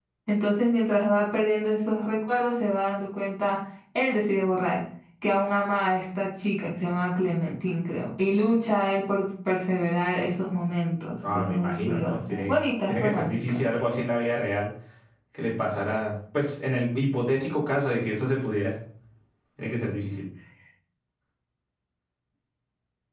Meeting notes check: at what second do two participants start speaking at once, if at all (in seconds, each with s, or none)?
11.2 s